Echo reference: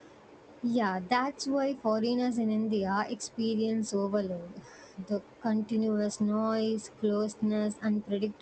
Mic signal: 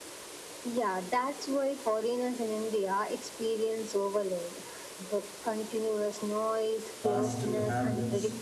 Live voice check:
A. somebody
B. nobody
A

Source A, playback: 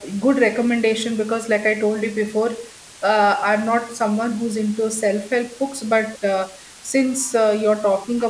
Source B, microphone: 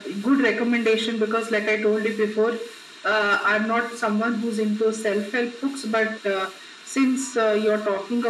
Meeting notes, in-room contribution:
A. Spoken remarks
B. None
B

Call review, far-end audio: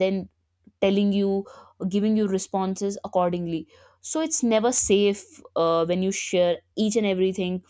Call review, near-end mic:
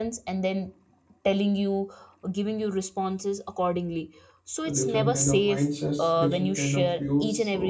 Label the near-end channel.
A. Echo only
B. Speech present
B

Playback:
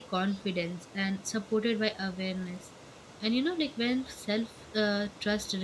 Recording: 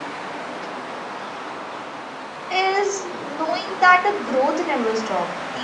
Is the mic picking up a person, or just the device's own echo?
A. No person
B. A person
B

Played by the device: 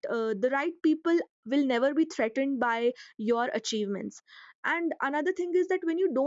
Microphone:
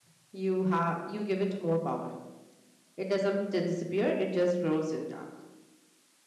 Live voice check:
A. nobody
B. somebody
B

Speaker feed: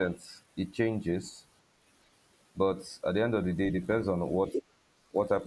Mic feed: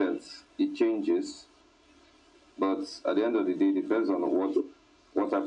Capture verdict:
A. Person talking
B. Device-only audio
B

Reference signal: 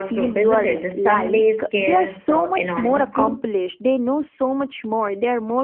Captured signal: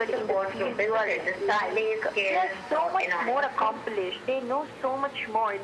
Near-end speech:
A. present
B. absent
B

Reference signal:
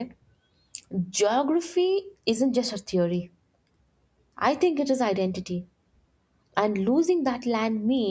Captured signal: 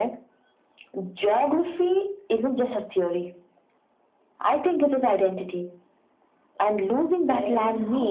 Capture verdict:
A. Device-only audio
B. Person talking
B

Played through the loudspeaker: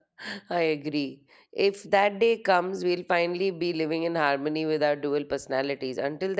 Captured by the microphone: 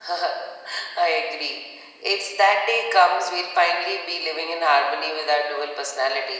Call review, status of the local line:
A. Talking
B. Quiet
B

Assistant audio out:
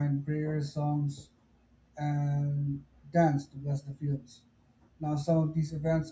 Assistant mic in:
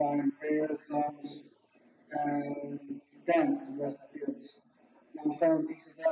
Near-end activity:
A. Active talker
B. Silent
B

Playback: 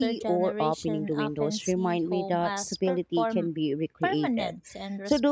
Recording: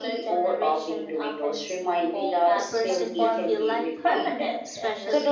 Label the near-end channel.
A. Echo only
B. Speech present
B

